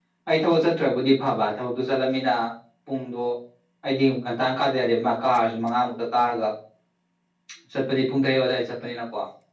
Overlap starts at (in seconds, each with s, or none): none